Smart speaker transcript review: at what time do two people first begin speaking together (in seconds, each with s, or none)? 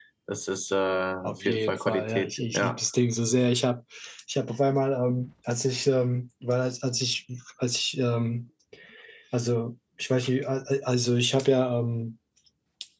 1.2 s